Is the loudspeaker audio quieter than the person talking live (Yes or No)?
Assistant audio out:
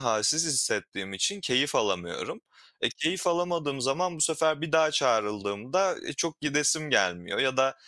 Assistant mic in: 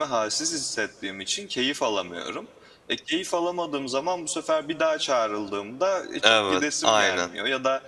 Yes